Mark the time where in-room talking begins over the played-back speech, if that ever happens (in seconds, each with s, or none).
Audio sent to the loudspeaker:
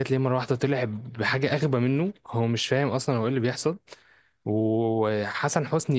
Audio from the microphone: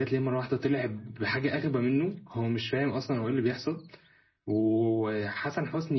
none